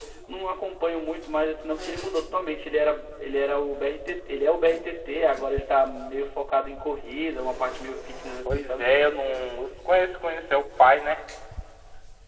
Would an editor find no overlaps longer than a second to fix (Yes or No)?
Yes